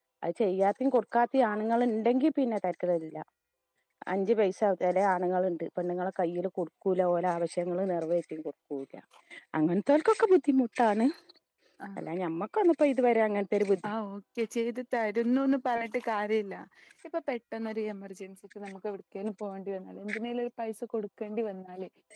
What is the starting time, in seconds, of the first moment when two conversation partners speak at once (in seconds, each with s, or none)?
none